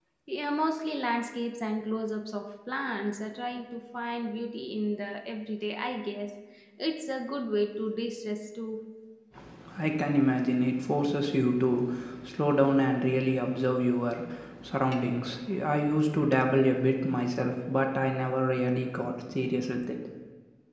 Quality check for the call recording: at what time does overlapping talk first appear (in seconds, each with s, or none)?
none